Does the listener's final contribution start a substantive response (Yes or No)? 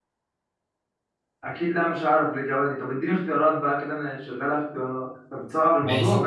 Yes